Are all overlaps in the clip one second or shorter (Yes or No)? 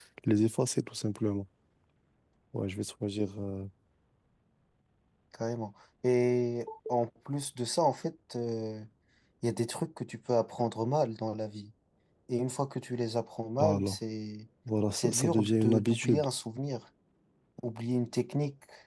No